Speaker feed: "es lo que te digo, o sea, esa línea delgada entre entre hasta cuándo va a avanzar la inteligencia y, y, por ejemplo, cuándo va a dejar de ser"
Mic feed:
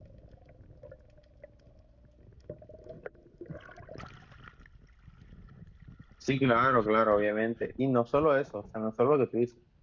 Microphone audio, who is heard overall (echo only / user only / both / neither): user only